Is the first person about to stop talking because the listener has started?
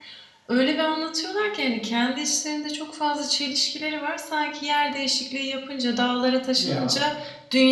No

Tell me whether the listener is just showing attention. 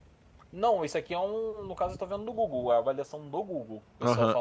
No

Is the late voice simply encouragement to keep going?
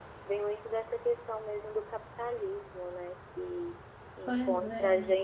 Yes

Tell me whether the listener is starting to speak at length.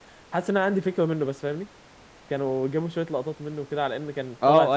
Yes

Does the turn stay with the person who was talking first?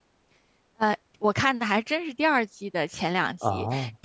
Yes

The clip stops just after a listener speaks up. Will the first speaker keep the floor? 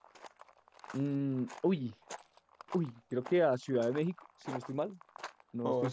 No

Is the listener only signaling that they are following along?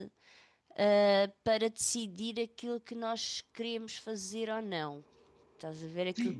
No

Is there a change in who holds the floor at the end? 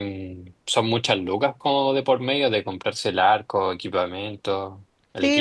Yes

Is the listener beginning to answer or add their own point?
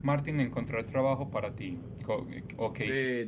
Yes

